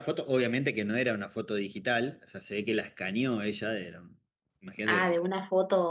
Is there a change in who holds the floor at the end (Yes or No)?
Yes